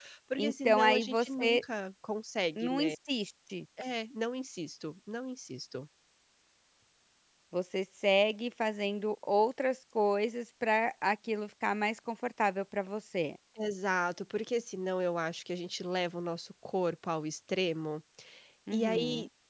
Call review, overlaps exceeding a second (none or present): present